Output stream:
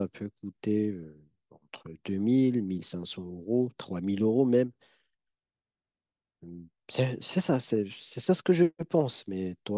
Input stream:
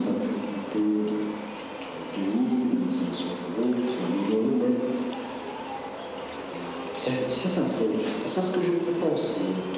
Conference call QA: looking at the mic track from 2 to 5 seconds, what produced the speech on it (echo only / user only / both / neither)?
echo only